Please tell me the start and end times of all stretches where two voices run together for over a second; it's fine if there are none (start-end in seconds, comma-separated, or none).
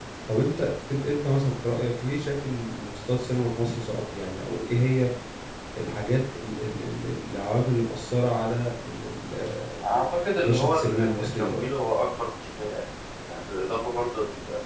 10.4-11.6